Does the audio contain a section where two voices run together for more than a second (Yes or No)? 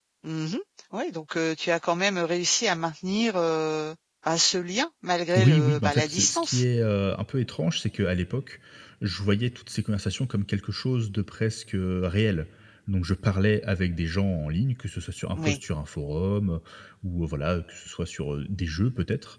Yes